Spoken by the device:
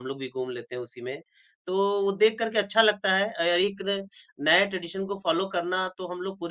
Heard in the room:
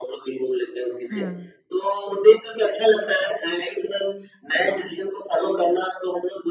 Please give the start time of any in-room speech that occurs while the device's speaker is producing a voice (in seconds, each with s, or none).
1.1 s